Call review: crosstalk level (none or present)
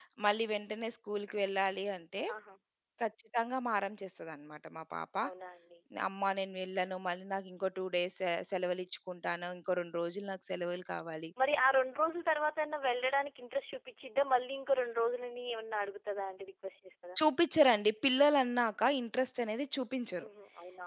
none